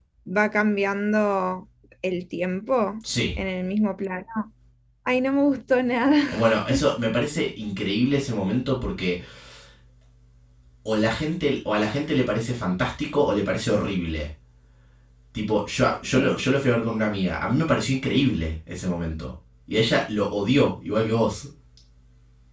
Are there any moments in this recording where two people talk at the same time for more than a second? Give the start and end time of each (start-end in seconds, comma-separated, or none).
none